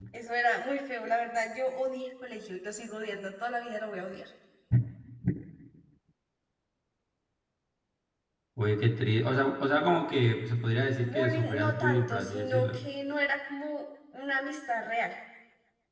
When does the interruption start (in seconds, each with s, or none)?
11.0 s